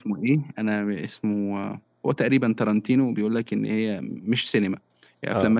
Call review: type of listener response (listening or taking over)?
listening